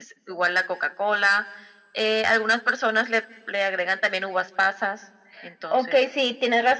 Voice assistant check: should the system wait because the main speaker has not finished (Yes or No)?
No